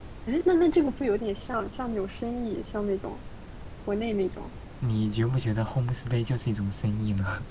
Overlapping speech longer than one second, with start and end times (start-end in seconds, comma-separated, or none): none